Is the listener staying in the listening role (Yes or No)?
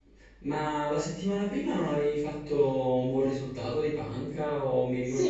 No